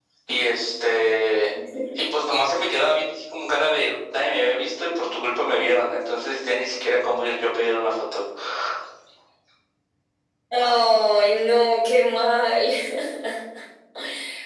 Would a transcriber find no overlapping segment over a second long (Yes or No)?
Yes